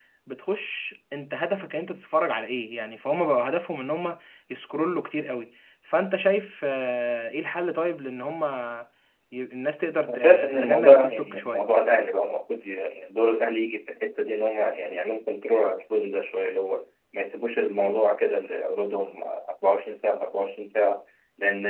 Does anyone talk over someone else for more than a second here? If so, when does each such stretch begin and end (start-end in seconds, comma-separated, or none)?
10.0-11.6